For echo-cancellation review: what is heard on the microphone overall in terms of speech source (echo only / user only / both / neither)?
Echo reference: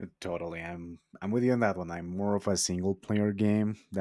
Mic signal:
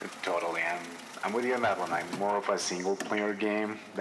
echo only